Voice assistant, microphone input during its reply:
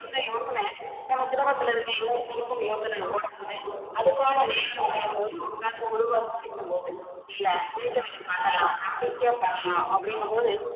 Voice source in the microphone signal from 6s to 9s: echo only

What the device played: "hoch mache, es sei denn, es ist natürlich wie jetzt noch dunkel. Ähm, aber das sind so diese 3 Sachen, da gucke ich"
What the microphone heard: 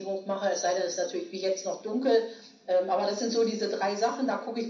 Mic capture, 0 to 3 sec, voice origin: echo only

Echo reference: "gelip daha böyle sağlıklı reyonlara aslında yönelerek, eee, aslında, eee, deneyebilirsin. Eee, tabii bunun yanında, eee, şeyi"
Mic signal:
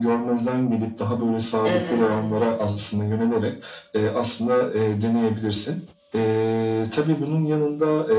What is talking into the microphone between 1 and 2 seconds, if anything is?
both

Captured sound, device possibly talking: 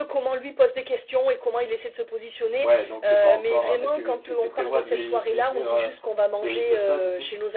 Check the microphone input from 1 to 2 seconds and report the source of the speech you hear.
echo only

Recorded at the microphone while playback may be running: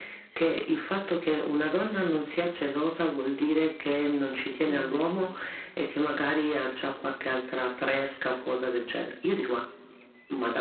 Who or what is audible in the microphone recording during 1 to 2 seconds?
echo only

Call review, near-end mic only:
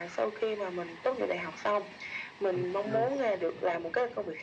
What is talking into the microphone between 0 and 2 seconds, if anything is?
echo only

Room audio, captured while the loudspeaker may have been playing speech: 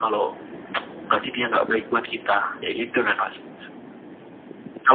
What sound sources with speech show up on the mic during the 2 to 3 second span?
echo only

